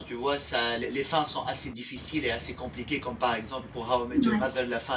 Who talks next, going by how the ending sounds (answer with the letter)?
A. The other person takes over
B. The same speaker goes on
B